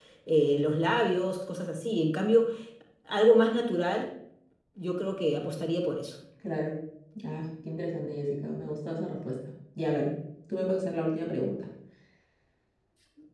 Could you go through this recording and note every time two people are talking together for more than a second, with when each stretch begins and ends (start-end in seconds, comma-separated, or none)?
none